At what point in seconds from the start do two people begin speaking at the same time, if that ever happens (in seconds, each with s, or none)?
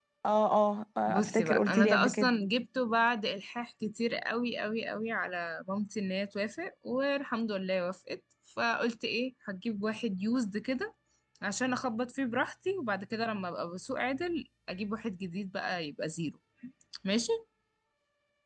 1.1 s